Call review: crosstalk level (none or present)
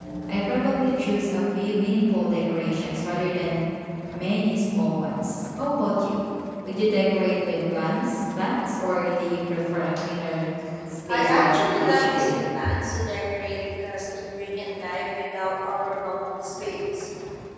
present